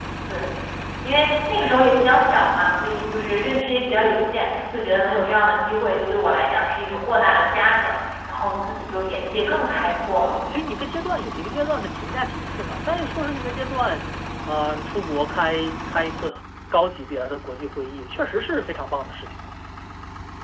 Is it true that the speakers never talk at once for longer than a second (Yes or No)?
Yes